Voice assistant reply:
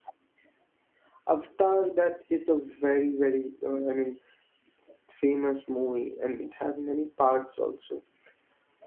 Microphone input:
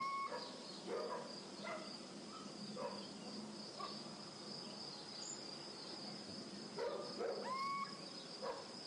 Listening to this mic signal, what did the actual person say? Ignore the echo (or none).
none